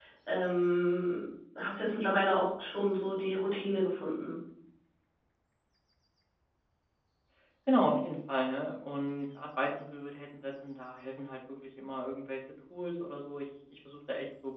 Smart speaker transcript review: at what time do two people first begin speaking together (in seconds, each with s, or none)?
none